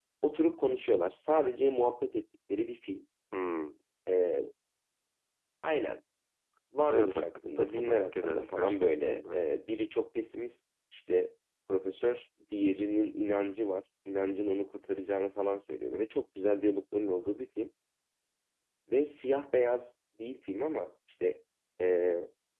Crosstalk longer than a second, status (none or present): present